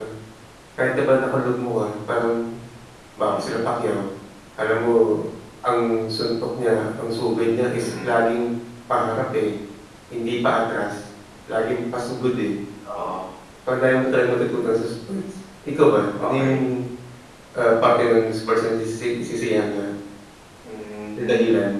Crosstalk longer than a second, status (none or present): none